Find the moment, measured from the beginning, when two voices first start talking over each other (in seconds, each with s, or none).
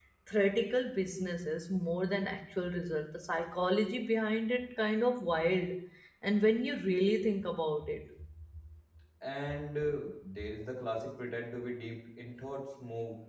none